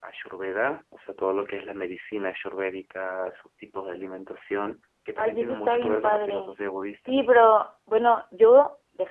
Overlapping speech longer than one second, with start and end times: 5.2-6.5

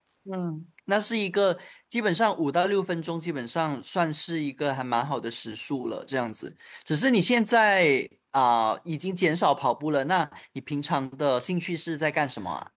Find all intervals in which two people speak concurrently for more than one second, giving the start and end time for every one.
none

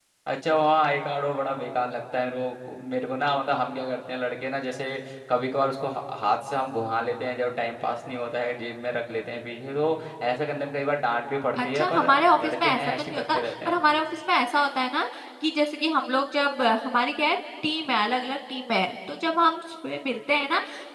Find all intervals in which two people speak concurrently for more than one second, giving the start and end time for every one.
11.6-13.8

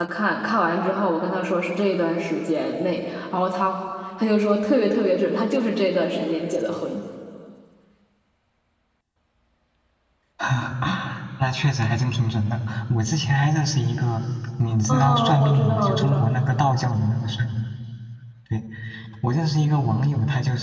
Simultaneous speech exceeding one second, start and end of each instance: 14.9-16.3

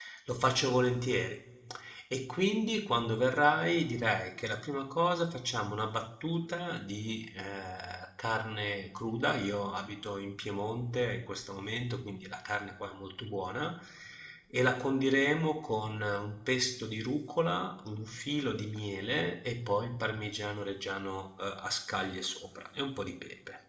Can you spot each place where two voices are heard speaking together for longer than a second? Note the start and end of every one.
none

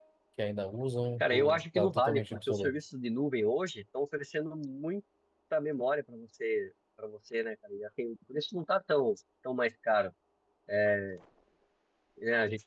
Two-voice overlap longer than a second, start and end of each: 1.2-2.7

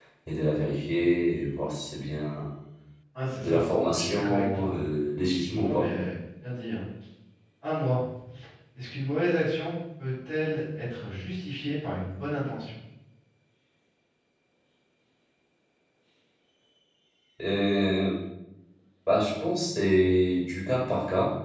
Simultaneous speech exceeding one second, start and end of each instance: 3.4-4.8

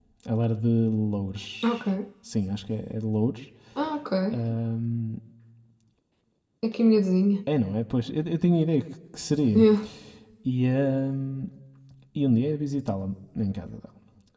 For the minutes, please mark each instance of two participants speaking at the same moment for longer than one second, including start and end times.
none

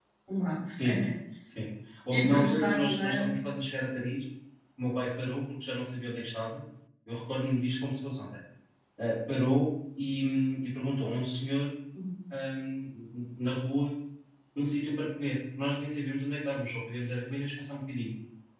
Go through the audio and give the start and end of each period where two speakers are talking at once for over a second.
2.1-3.3

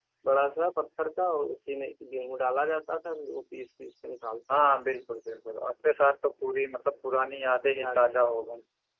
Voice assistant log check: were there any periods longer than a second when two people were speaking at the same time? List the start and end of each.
none

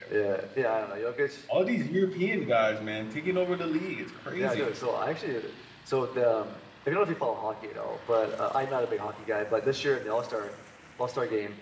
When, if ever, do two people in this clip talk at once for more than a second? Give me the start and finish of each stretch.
none

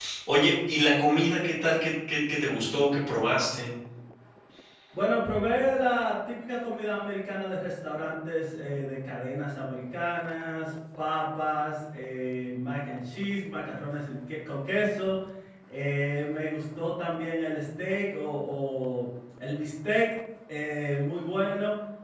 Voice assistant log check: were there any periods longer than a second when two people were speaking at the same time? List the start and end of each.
none

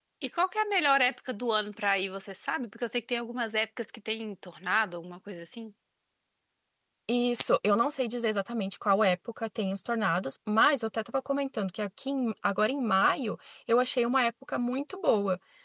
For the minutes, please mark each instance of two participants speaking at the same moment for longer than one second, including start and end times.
none

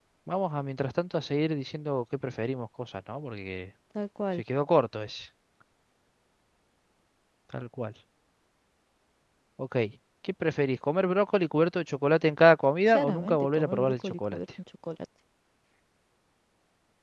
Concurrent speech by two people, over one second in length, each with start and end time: 12.9-14.4

